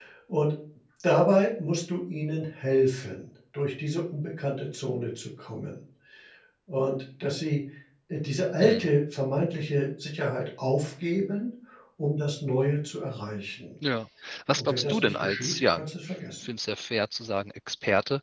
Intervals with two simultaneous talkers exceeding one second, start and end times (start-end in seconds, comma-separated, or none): 14.6-15.8